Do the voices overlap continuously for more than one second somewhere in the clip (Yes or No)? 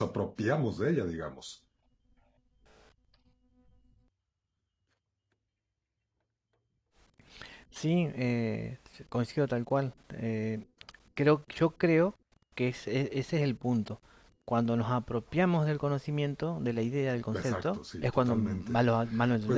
Yes